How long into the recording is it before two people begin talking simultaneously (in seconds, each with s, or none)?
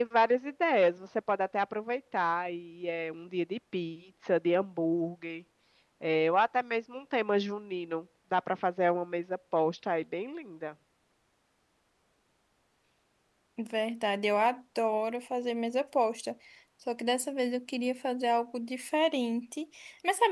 none